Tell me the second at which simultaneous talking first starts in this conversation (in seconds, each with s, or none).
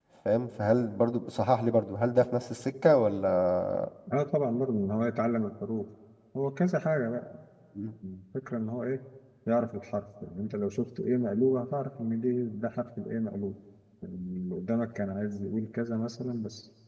none